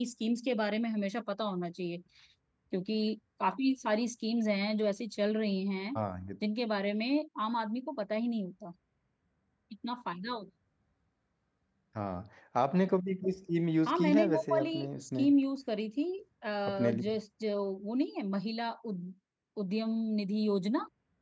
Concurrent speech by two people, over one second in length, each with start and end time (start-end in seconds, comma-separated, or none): 13.9-15.2